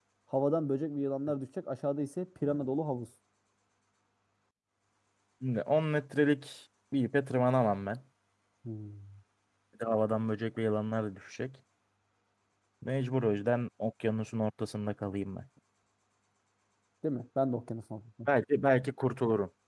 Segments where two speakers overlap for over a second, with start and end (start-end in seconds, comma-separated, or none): none